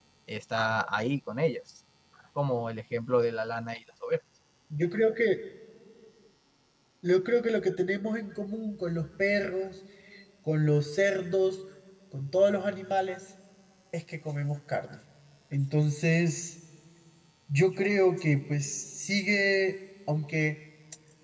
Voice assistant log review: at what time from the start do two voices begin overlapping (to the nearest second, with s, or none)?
none